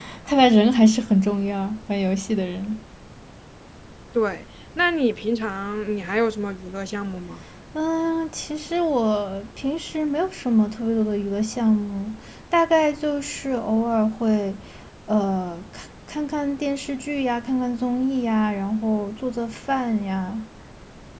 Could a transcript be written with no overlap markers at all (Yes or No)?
Yes